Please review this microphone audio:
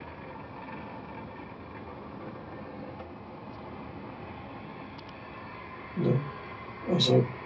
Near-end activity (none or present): present